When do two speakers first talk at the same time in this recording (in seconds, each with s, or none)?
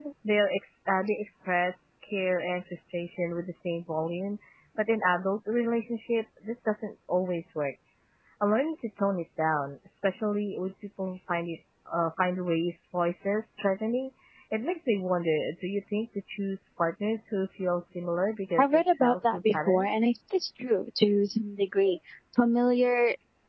18.6 s